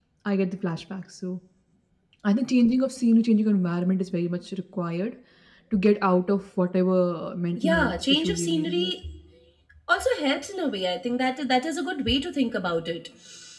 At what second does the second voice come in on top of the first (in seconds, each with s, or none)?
7.6 s